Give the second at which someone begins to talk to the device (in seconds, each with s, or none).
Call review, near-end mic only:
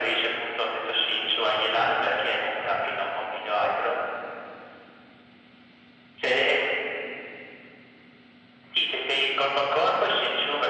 none